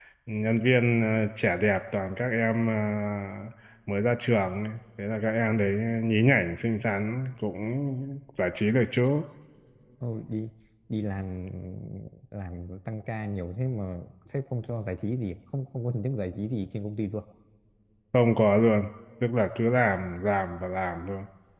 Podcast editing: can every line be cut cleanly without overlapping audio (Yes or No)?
Yes